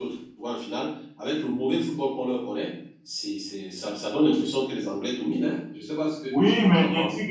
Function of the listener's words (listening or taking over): taking over